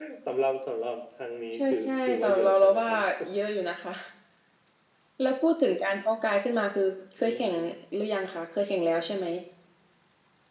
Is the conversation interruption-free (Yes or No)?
No